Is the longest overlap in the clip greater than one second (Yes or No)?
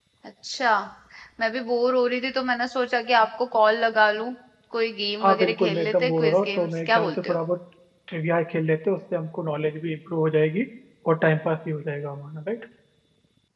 Yes